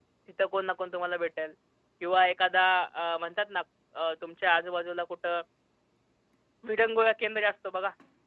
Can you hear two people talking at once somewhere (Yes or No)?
No